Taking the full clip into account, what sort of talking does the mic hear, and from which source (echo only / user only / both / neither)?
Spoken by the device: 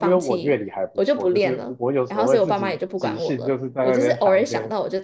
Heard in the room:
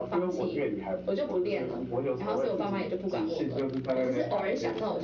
echo only